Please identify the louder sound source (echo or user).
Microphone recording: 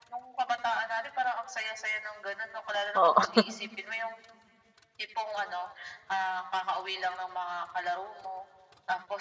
user